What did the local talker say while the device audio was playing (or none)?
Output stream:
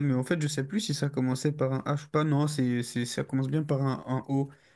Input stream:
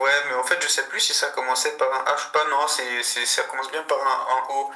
none